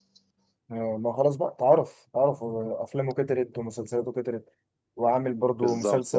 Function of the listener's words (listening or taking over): taking over